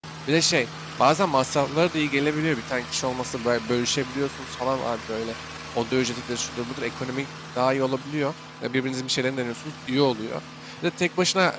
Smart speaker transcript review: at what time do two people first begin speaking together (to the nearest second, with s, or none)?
none